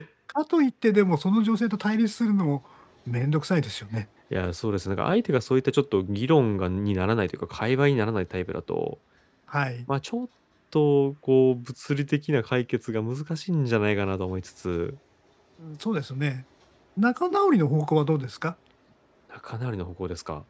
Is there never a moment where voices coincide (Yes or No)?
Yes